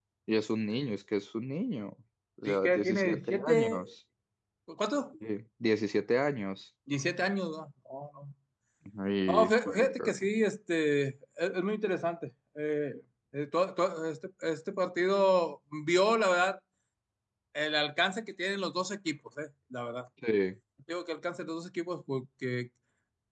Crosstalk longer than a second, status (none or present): present